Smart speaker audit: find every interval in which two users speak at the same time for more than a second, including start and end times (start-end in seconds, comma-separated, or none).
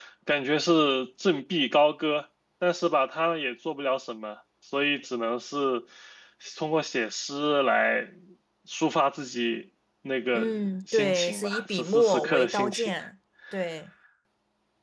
10.9-12.9